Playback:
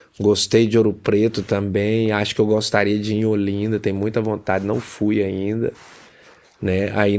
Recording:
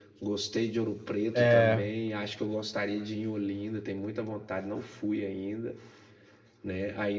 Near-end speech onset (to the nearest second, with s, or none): 1 s